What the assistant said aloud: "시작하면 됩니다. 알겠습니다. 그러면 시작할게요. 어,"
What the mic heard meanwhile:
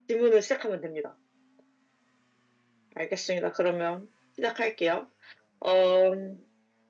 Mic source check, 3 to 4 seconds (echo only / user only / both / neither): echo only